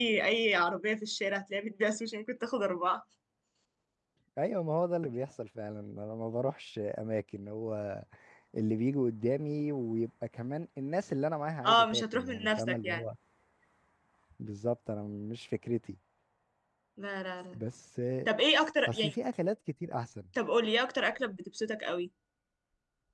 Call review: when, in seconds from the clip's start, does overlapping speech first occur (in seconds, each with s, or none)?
11.7 s